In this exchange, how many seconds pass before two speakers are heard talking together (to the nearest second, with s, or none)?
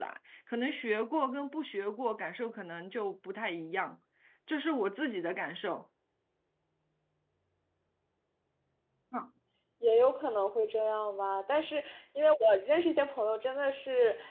none